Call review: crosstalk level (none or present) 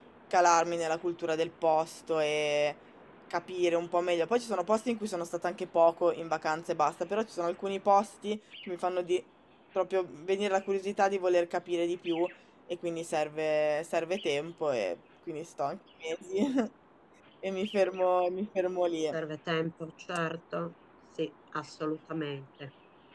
none